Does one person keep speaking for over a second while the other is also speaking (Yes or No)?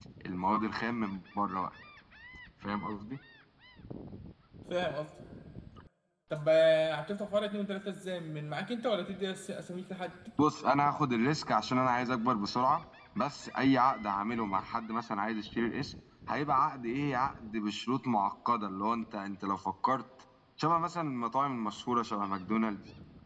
No